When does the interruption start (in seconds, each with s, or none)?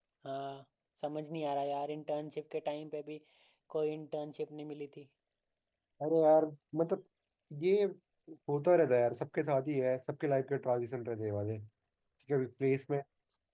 none